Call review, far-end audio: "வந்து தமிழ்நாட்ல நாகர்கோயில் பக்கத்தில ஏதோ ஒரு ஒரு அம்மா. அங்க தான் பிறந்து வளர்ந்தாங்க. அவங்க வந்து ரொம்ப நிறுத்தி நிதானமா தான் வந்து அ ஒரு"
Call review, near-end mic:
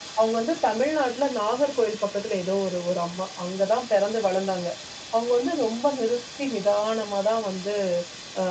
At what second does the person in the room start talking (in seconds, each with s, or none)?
none